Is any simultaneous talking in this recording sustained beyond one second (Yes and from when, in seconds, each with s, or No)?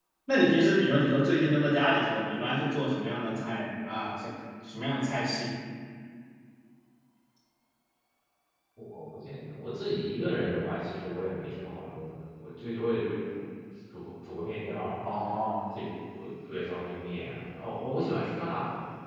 No